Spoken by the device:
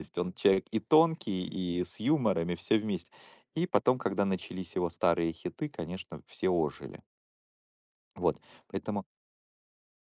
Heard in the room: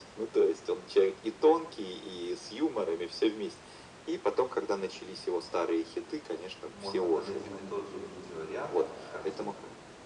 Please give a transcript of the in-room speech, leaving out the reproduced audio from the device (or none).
Можно под один и тот же видеоряд, под картинку,